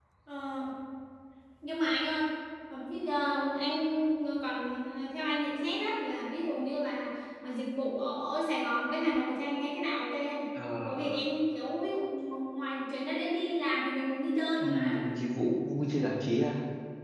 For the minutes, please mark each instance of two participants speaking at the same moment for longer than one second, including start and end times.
none

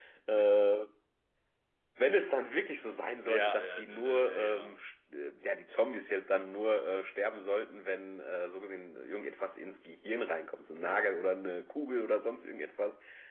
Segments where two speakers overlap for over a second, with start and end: 3.2-4.8

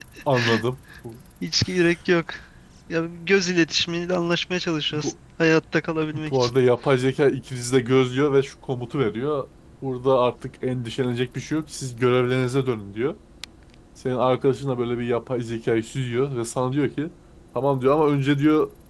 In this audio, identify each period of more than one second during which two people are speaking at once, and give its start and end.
none

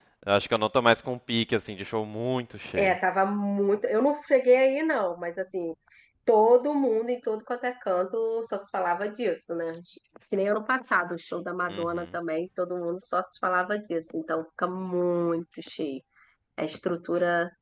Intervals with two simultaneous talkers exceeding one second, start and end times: none

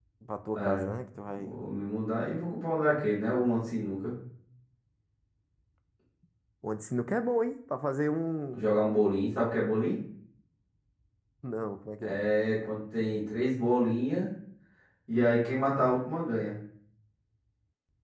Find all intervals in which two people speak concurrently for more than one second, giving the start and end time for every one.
none

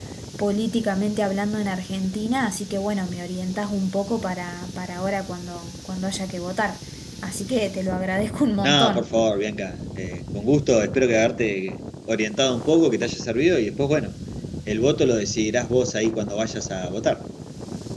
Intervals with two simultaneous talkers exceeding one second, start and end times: none

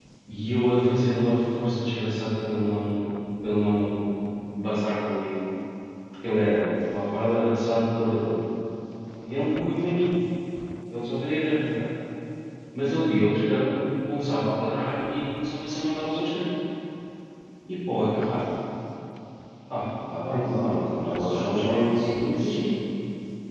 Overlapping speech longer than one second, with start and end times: 20.2-22.8

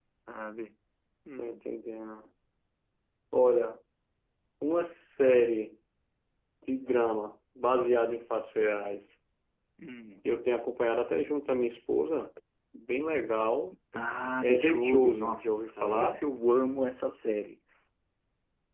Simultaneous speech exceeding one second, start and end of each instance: 14.4-16.2

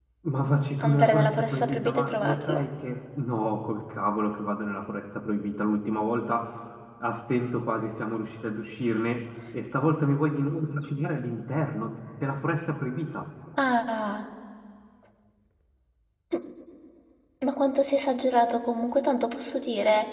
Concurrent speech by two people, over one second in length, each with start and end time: 0.8-2.6

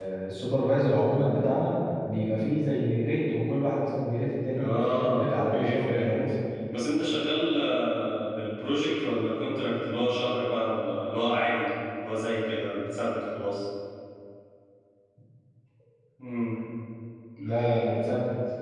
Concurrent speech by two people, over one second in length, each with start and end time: 4.6-6.3

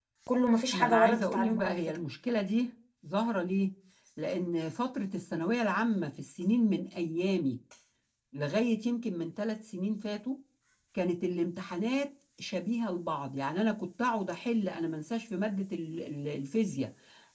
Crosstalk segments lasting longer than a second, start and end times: 0.7-2.0

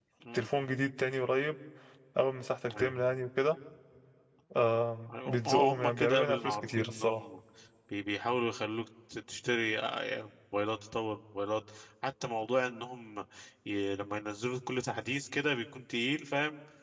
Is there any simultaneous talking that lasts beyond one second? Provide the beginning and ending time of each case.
5.1-7.2

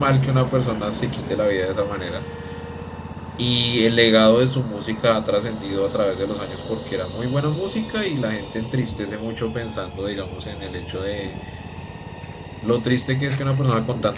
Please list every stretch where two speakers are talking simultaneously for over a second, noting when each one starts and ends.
none

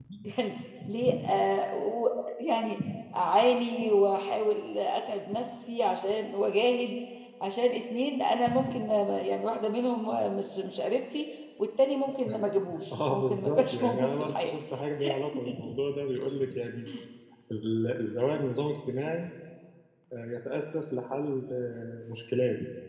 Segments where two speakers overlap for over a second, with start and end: 12.9-14.5

